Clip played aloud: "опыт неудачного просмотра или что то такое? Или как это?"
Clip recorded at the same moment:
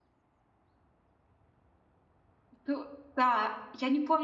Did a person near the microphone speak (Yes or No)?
Yes